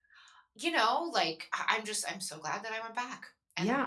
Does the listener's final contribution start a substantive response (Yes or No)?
Yes